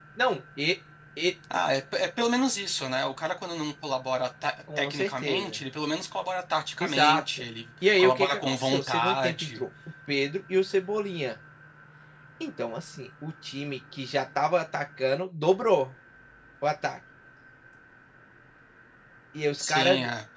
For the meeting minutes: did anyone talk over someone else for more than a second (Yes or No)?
Yes